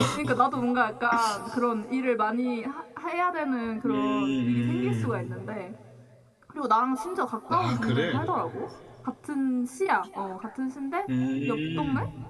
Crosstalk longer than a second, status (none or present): present